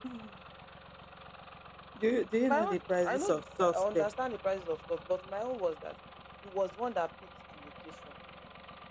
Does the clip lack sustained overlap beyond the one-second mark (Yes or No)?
No